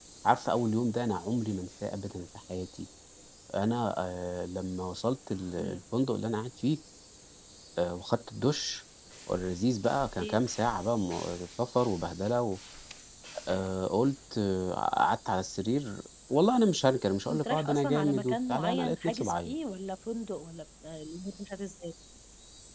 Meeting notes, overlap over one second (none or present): present